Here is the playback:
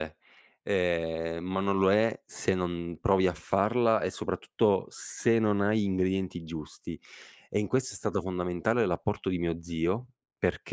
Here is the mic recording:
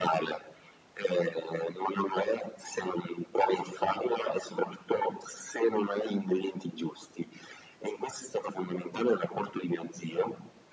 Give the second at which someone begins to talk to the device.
none

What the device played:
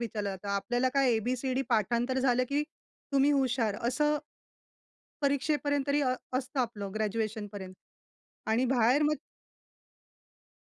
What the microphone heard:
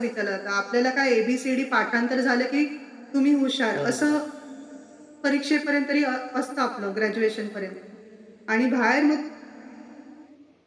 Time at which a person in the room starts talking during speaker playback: 3.7 s

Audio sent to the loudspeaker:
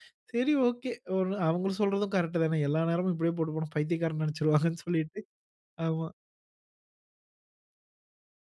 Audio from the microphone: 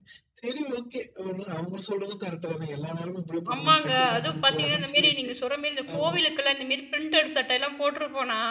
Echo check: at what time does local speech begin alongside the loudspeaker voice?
3.5 s

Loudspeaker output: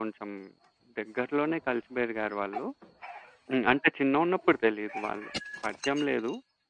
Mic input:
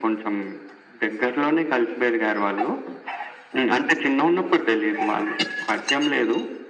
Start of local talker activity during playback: none

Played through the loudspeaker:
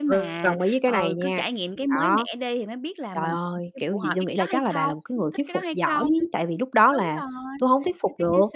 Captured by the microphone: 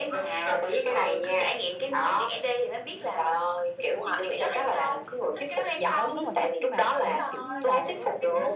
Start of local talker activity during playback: 5.8 s

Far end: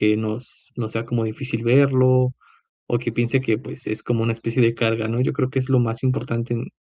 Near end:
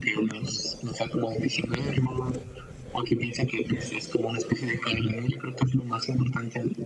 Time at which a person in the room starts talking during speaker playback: none

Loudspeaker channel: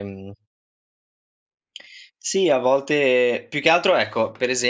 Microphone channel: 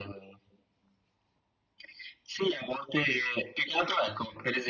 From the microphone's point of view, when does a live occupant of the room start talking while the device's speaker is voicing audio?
none

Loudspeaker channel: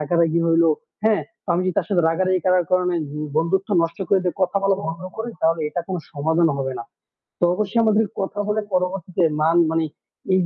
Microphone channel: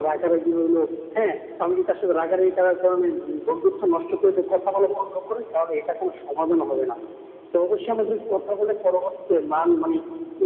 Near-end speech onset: none

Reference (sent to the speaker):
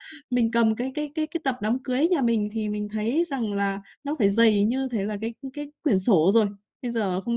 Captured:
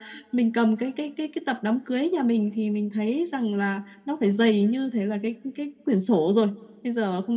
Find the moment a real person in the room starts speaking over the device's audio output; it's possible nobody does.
none

